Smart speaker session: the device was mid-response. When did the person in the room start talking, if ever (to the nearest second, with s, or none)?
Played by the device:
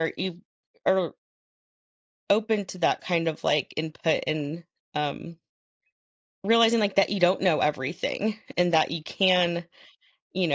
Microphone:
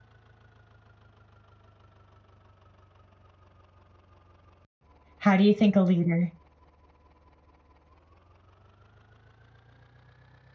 5 s